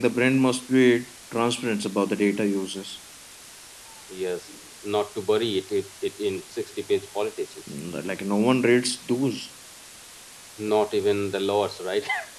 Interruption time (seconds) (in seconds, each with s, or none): none